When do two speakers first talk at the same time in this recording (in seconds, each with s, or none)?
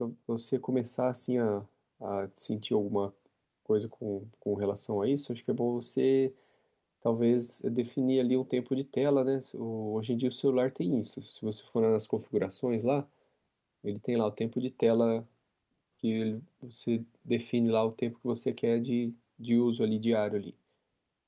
none